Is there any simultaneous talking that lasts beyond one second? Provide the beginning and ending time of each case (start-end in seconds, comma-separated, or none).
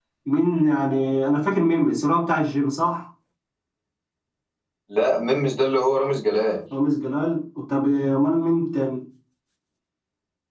none